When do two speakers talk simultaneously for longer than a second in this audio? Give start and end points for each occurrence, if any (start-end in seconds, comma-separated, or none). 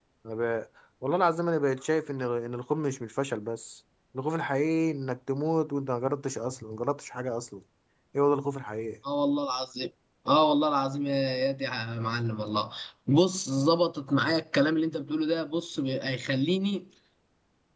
none